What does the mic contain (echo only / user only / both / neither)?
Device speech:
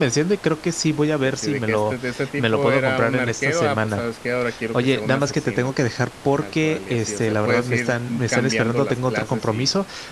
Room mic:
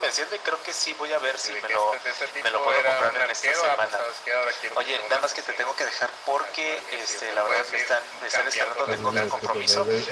both